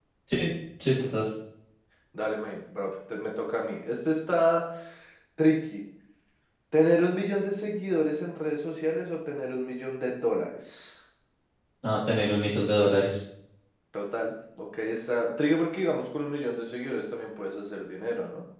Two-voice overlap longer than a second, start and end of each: none

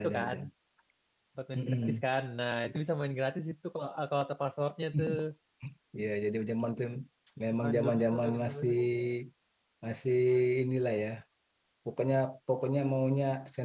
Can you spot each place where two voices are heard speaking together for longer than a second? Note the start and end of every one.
7.5-8.7

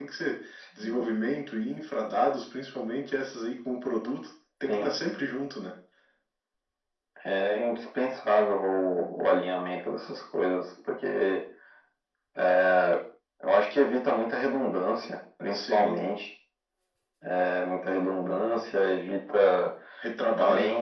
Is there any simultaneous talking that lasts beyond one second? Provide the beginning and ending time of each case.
none

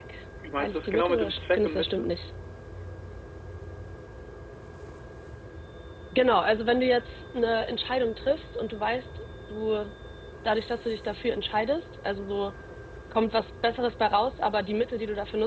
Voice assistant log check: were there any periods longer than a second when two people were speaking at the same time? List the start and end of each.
0.6-2.1

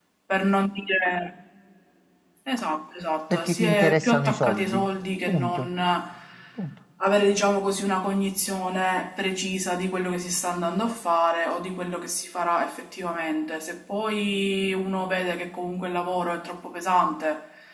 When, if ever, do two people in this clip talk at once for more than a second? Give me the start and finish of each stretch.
3.3-4.8

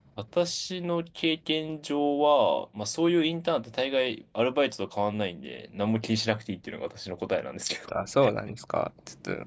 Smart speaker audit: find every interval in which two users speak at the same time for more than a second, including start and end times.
none

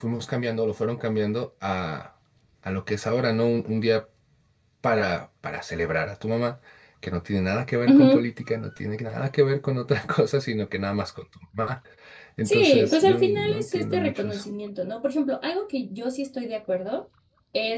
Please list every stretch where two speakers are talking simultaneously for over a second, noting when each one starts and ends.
12.4-14.4

